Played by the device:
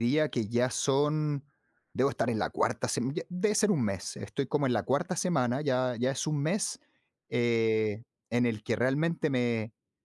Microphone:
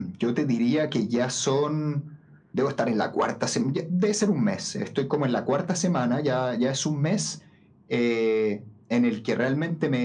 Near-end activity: none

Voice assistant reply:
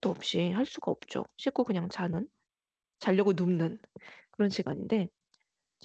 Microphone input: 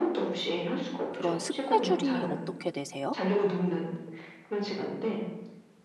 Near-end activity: present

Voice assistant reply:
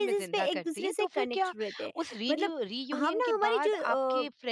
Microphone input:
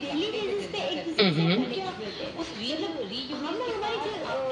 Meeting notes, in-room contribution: present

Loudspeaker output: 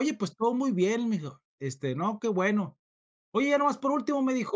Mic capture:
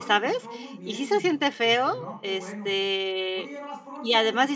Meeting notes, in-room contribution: present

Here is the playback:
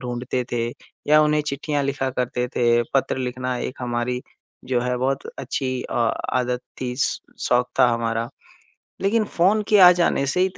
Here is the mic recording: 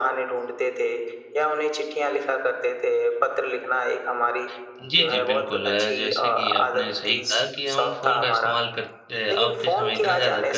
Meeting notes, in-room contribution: present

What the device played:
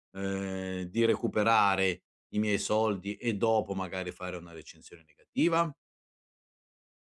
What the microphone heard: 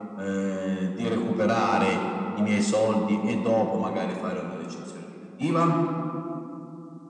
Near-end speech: present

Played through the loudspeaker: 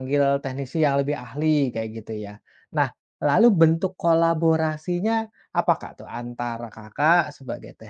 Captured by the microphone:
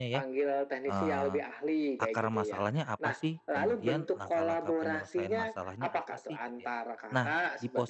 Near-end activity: present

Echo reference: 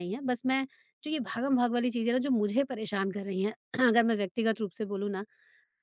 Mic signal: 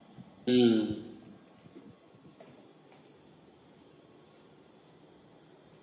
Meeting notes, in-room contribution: present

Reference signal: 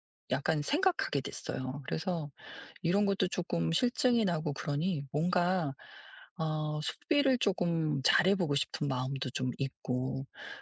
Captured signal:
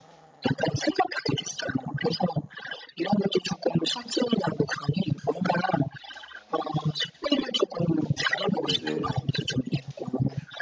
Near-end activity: present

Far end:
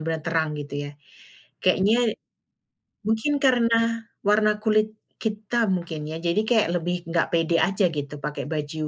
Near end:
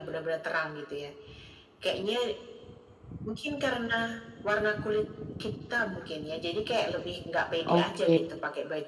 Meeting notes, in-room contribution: present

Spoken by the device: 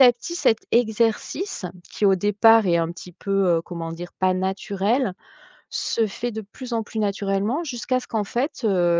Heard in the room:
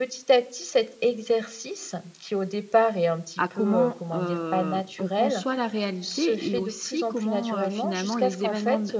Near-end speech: present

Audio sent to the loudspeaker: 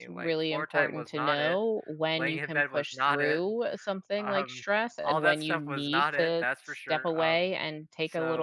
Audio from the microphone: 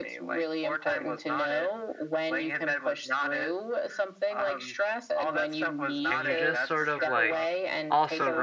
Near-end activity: present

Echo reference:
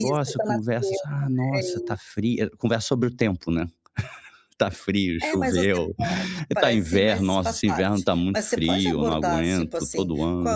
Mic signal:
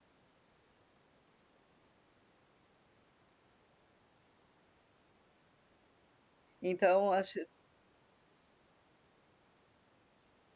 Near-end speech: present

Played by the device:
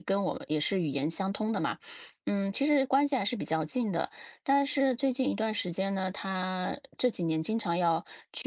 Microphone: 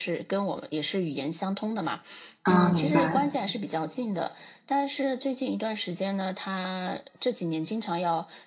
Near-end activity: present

